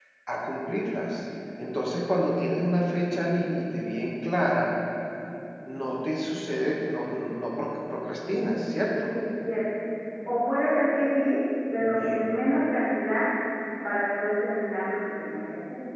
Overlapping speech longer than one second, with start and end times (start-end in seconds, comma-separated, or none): none